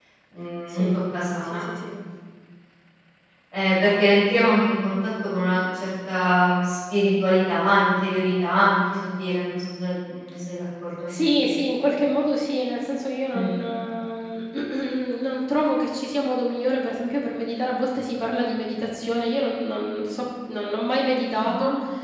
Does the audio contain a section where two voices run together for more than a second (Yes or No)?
No